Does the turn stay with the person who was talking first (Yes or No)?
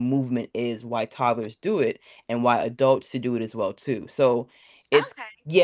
No